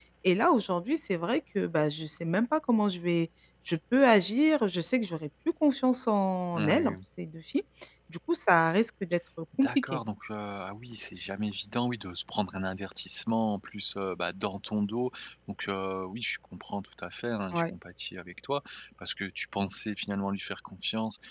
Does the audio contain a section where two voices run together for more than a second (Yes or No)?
No